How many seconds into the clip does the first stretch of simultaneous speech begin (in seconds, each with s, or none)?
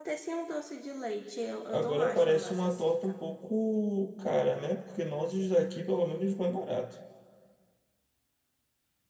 1.7 s